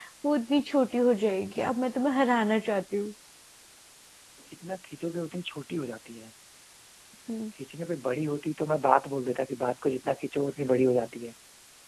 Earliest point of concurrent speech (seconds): none

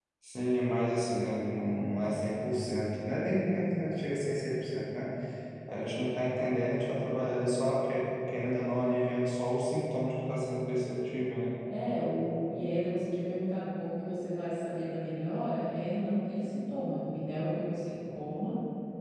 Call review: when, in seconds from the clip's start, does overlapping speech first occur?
none

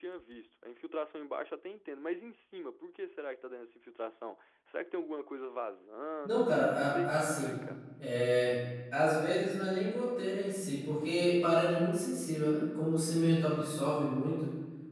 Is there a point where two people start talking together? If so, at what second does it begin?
6.2 s

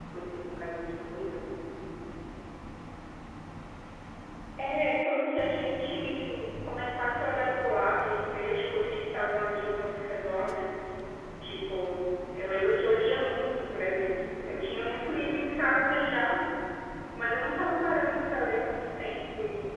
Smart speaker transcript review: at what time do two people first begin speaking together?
none

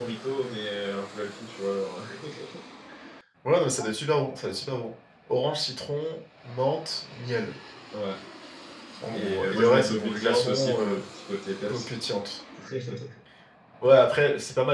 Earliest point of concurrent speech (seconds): 9.1 s

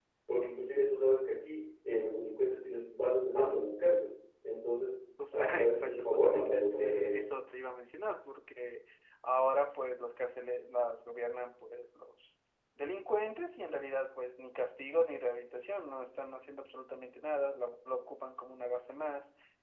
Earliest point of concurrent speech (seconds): 5.2 s

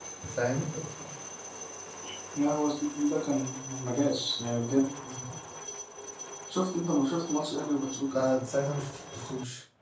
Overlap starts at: none

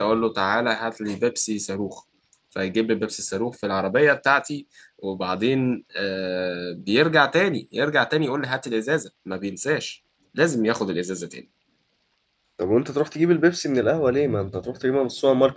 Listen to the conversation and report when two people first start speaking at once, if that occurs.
none

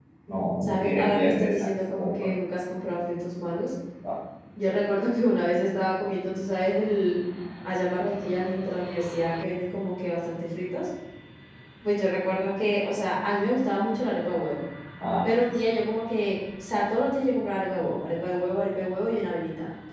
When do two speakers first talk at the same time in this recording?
0.6 s

